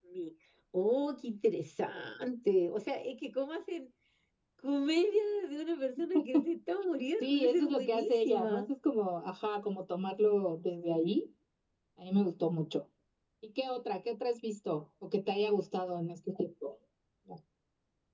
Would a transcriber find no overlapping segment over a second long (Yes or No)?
No